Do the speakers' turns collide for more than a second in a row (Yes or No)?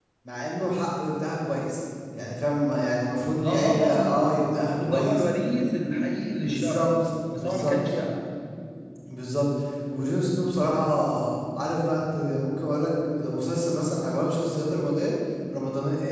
Yes